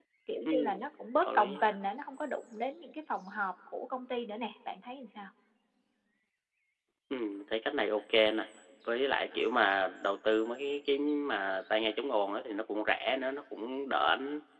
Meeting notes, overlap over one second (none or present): none